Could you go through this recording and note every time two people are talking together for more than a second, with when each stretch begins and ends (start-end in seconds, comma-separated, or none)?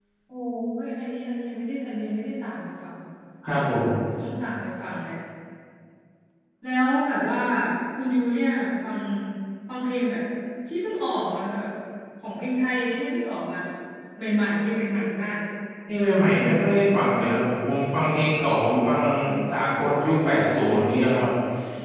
none